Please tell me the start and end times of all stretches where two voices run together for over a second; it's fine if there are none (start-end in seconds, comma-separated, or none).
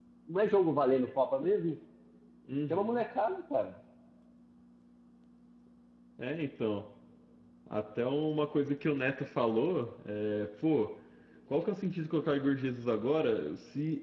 none